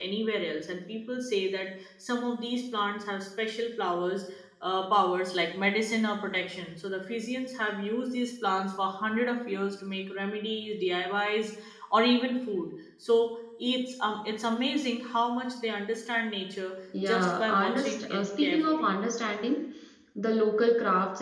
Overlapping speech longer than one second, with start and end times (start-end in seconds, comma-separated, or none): 17.1-18.9